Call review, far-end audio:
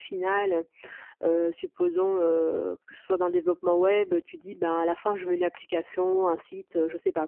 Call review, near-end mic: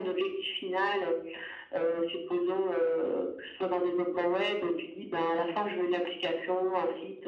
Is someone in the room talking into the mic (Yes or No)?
No